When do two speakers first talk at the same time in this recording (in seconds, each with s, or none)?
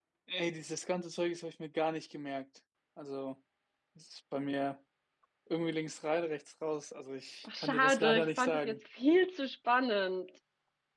7.5 s